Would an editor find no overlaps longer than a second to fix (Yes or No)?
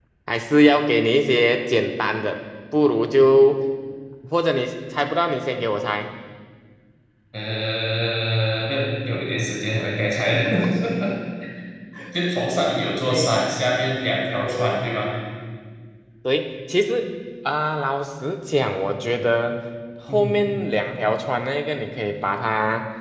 Yes